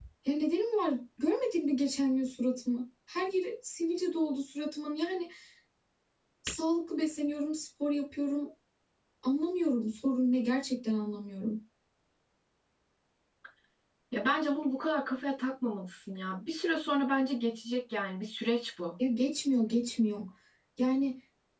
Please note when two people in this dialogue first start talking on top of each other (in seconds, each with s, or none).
none